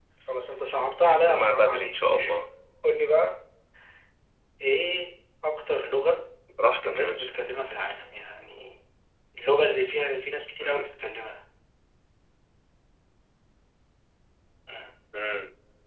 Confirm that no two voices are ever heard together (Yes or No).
No